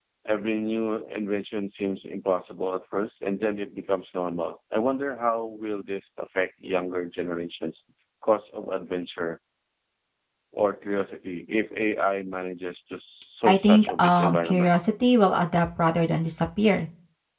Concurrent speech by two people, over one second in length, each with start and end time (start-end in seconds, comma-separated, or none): 13.4-14.7